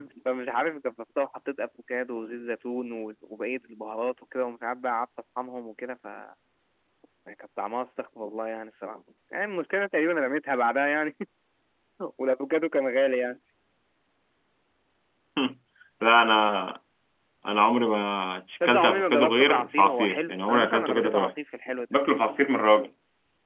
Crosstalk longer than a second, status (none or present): present